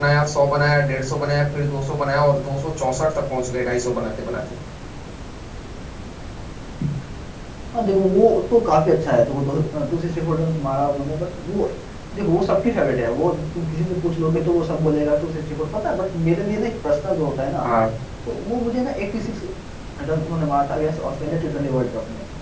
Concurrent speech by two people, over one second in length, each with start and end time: none

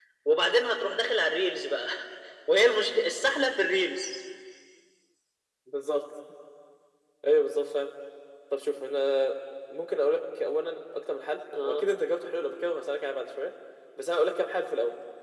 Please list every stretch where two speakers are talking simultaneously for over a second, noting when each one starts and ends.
none

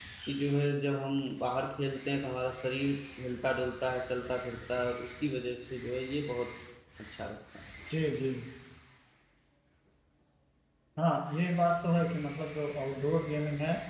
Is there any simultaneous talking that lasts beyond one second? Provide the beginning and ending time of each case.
none

